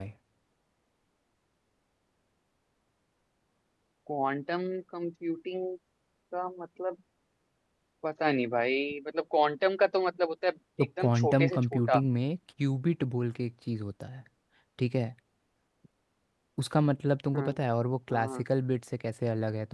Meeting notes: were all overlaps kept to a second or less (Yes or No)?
No